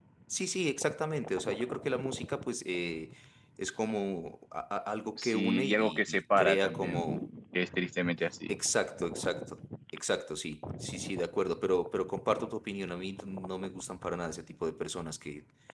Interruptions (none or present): present